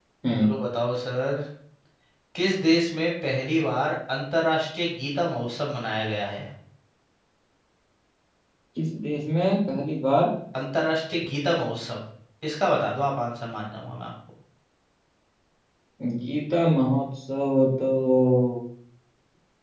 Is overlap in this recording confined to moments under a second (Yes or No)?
Yes